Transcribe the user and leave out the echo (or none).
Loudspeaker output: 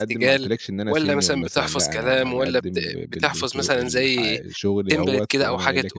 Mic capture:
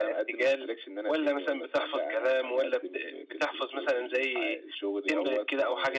none